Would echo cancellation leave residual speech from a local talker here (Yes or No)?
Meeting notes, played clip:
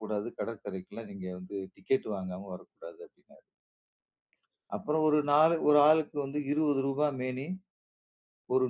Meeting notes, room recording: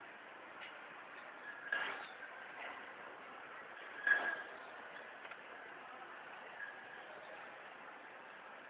No